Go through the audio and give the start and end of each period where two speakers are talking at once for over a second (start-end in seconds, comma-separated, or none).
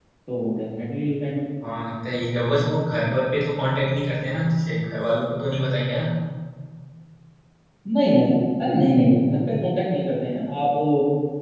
none